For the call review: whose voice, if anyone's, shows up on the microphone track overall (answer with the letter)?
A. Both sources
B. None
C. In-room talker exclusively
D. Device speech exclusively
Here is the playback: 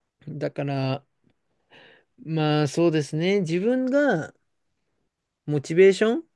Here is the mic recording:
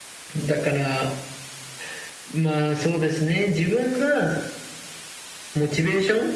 D